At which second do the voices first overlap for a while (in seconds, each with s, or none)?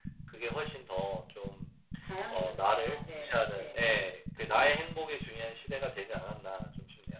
2.3 s